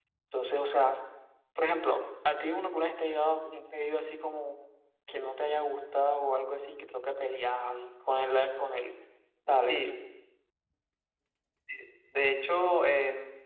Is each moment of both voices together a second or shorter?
Yes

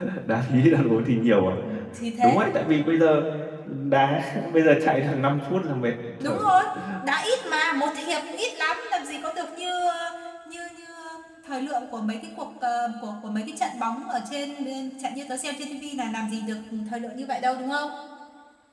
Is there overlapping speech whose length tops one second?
No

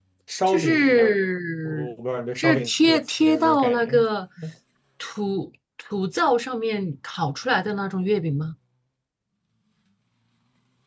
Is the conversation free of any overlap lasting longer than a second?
No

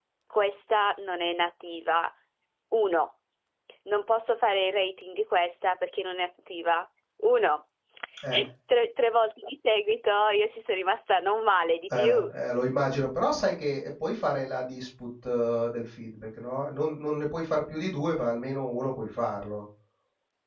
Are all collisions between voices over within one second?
Yes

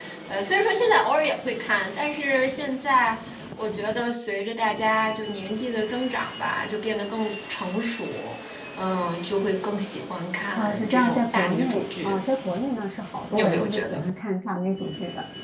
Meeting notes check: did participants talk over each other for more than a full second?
Yes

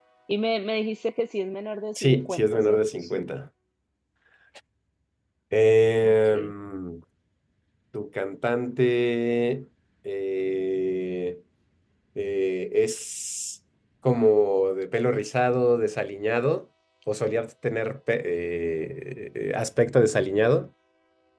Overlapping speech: Yes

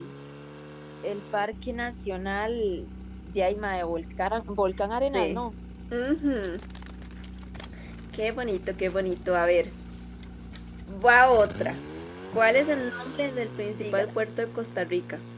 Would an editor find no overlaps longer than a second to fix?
Yes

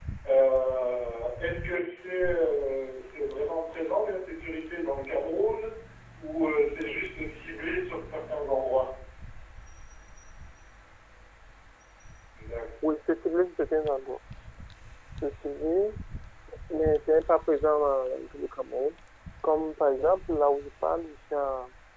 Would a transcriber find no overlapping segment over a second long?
Yes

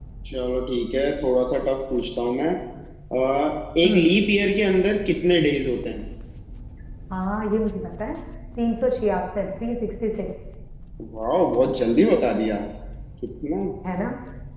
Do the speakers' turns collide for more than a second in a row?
No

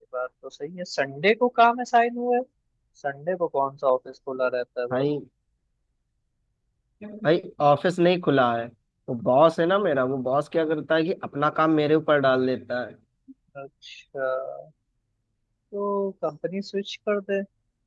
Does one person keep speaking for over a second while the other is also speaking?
No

